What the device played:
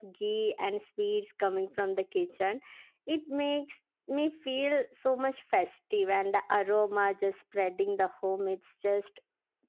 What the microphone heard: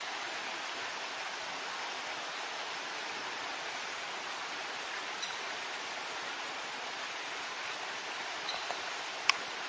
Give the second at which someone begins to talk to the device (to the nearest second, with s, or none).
none